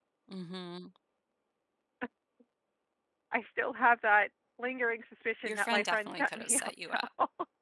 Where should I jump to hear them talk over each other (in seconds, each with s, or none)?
5.5 s